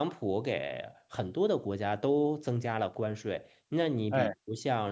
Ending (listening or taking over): listening